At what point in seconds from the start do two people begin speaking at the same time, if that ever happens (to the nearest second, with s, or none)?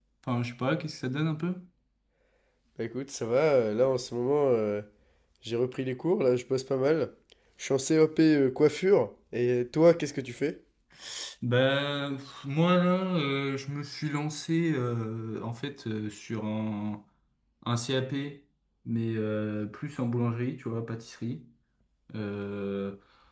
none